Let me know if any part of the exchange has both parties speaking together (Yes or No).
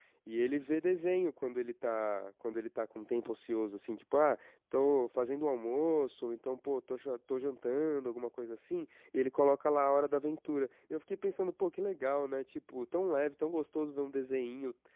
No